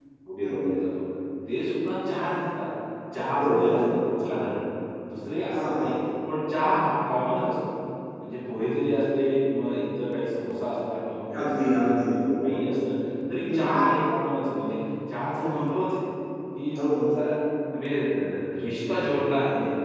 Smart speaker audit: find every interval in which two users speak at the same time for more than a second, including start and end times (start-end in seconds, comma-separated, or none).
11.4-12.6